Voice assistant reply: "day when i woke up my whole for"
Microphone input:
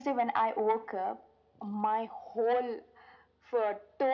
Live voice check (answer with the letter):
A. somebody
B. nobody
B